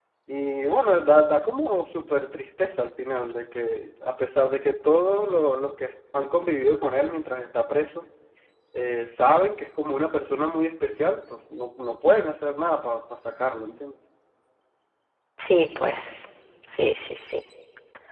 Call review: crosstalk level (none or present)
none